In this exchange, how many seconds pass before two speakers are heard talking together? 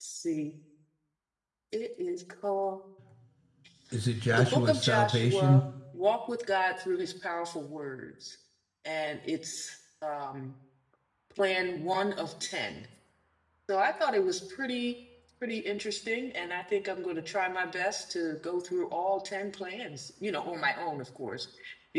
4.3 s

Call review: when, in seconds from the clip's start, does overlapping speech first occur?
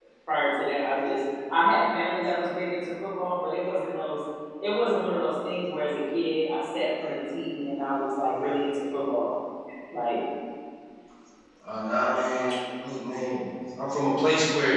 none

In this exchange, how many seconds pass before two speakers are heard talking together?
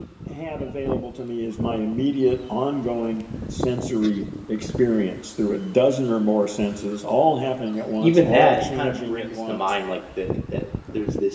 8.0 s

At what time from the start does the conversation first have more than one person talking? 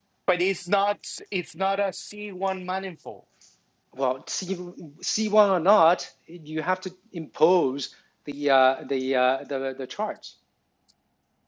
none

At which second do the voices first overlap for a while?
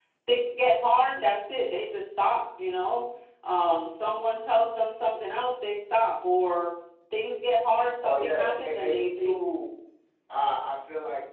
8.0 s

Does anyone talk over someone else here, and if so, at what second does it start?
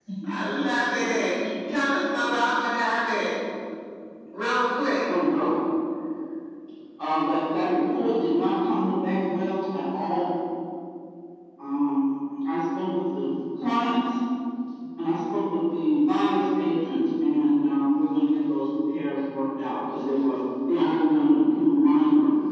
none

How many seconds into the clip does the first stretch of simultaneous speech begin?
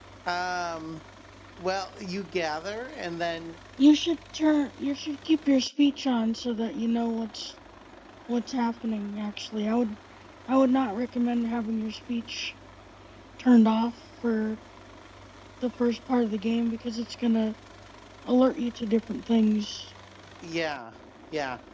none

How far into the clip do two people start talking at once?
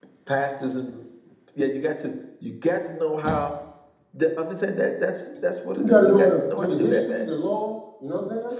5.7 s

